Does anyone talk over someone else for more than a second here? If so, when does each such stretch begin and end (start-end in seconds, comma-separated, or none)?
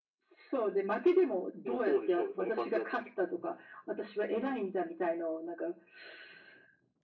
1.6-3.0